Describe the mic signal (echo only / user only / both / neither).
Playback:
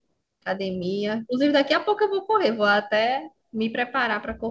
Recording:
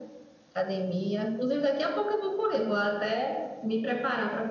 echo only